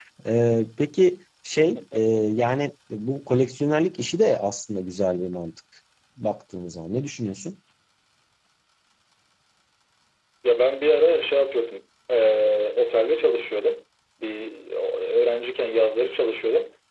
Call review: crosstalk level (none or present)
none